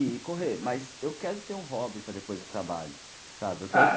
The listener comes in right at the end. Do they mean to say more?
Yes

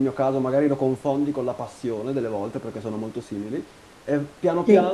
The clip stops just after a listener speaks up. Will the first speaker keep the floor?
Yes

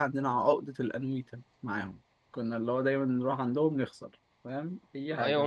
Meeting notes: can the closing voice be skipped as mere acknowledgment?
No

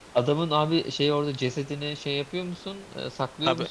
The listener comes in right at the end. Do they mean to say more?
Yes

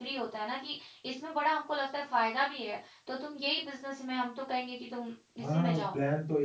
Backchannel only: No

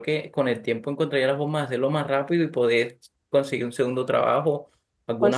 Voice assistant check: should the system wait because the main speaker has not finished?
Yes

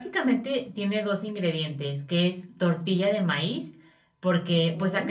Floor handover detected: No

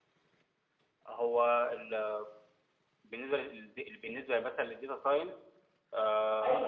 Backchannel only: No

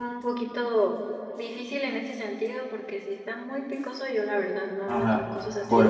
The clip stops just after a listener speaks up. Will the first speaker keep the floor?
No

